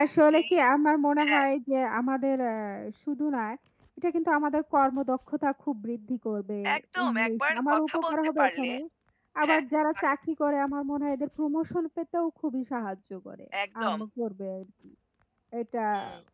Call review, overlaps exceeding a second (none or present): present